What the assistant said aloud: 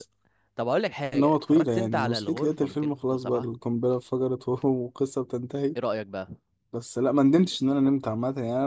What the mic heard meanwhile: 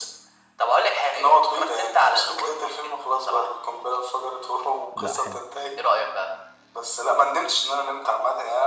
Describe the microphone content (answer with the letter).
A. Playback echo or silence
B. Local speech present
B